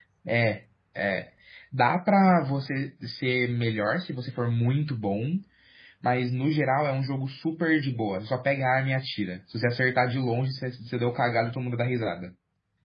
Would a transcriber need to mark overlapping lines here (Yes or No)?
No